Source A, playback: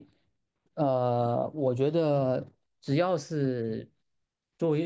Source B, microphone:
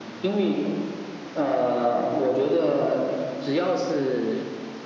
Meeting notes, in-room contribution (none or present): none